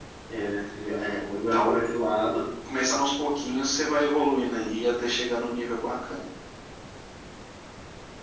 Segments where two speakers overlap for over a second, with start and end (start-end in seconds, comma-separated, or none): none